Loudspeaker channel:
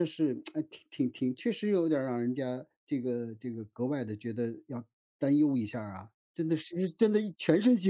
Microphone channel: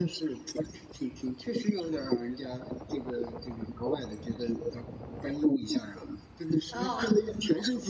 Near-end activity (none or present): present